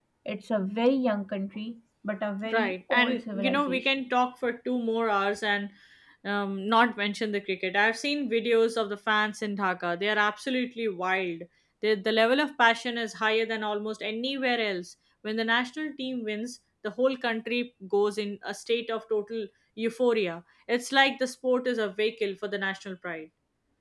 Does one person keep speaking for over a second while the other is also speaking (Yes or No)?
Yes